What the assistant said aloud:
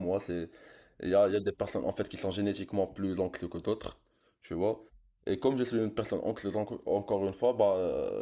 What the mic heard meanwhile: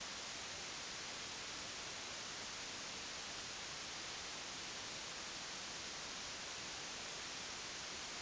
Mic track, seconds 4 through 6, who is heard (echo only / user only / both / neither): neither